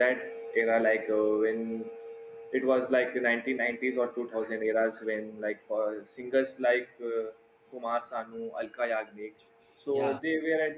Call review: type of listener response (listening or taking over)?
listening